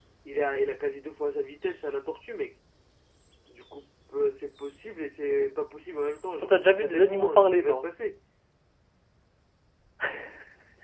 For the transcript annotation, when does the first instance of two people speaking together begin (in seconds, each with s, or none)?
6.4 s